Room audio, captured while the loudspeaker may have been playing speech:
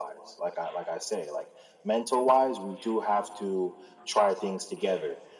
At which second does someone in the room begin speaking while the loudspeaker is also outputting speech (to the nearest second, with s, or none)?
none